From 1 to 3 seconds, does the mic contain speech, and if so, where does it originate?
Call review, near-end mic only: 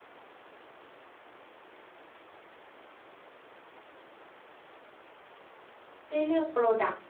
neither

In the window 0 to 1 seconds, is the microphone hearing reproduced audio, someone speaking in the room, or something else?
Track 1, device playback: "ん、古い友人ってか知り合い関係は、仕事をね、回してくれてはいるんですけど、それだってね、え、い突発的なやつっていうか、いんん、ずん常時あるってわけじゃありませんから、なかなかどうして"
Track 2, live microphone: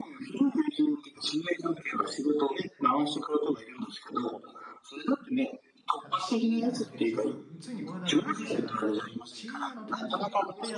echo only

